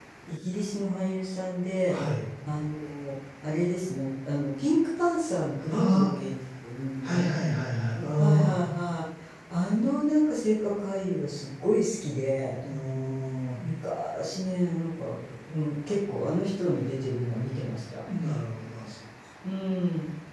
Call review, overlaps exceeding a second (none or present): none